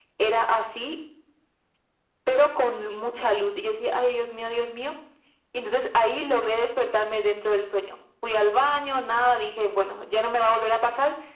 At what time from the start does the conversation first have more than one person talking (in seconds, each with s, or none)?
none